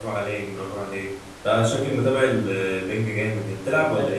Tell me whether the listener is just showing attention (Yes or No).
No